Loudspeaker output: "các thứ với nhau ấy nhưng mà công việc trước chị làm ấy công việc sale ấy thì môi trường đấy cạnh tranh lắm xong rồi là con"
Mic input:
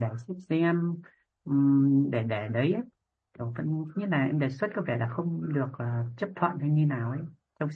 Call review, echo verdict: none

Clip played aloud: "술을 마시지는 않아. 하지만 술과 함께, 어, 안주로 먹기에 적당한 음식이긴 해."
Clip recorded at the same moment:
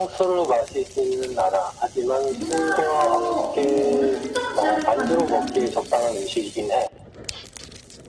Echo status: present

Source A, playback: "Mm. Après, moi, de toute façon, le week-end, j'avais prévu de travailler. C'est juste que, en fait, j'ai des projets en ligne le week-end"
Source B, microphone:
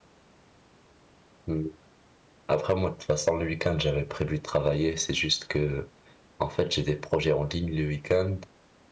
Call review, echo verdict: present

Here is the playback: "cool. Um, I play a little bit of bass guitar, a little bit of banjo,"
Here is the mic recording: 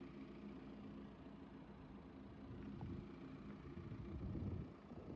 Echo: none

